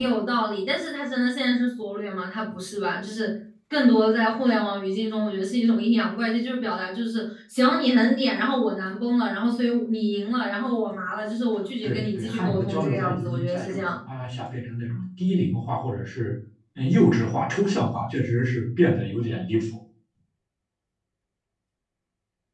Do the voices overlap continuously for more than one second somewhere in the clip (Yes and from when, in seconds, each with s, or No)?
Yes, from 11.8 s